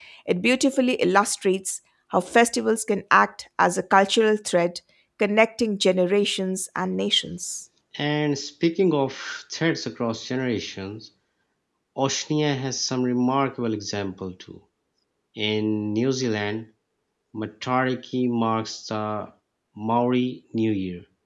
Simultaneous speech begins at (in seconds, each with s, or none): none